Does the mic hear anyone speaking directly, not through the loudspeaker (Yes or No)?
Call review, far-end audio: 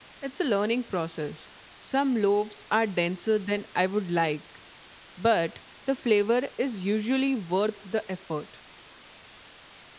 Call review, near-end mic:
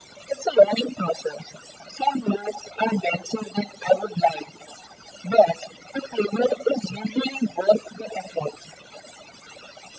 No